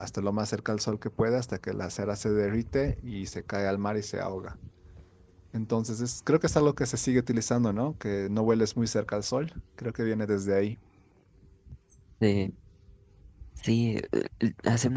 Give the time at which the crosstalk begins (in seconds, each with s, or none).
none